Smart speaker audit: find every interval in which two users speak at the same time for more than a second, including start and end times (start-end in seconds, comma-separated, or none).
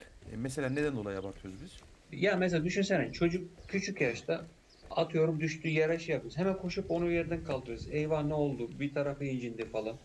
none